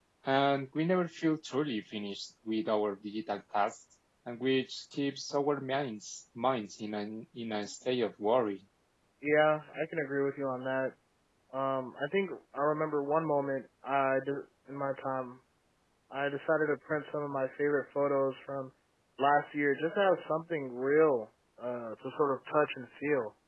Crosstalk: none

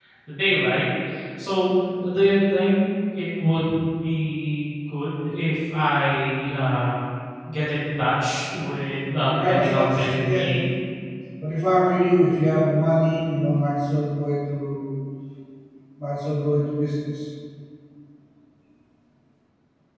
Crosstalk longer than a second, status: present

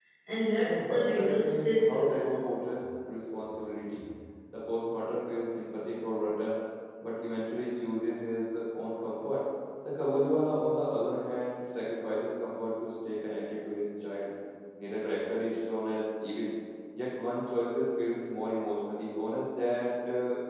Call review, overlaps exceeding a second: present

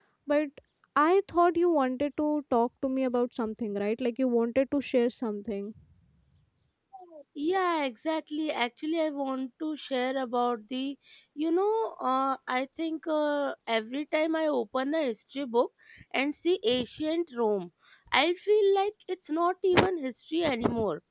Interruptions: none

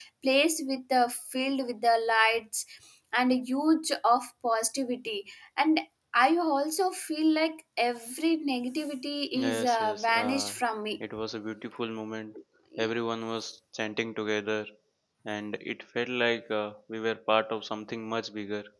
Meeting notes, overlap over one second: present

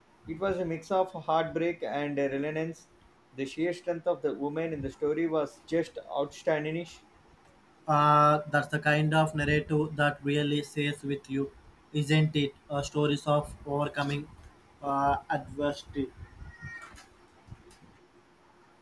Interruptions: none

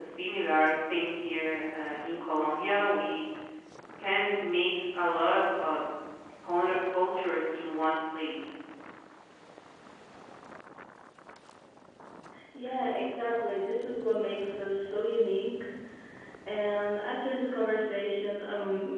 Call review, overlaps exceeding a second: none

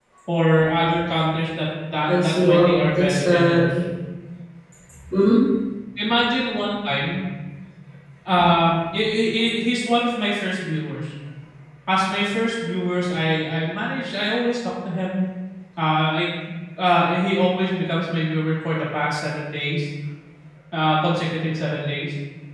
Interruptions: present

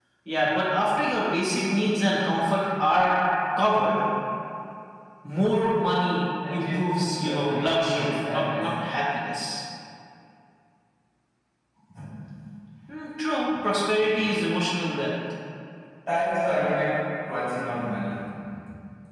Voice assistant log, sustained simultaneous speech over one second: present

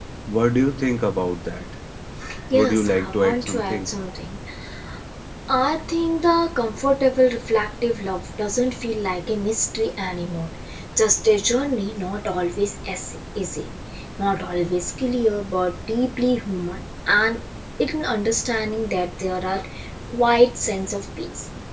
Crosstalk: present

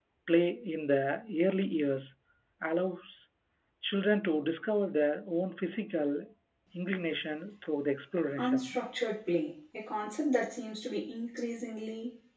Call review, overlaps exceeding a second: none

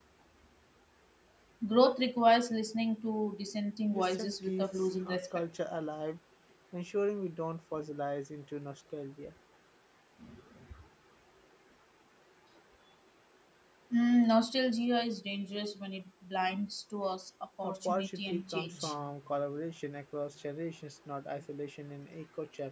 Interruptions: present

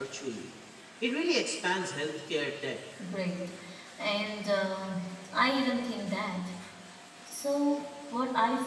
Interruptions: none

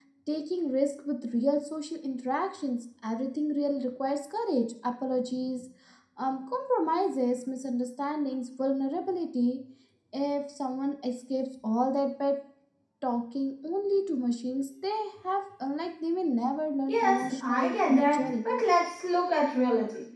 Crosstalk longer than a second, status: present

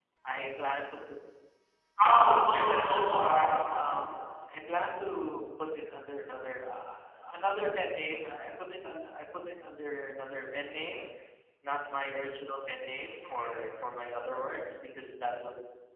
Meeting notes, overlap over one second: none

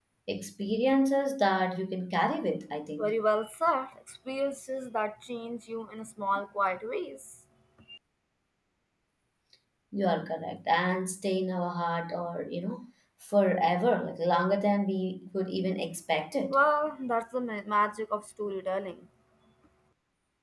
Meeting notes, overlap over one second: none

